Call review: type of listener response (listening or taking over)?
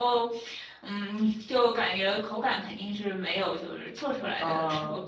listening